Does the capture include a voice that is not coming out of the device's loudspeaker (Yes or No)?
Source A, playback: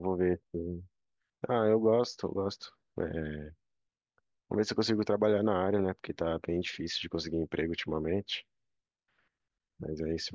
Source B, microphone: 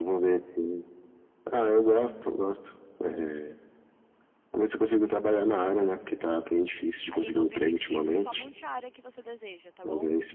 Yes